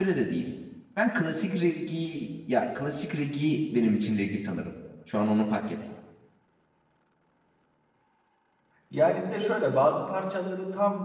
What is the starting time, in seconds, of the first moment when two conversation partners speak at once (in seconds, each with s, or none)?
none